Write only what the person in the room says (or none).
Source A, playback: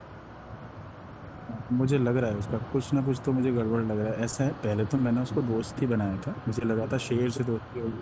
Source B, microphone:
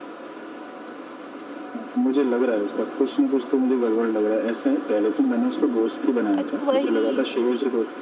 अब वही